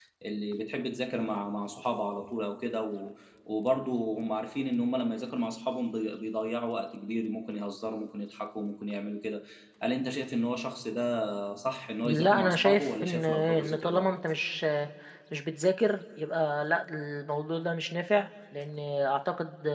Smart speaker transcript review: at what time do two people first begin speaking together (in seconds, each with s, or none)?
12.0 s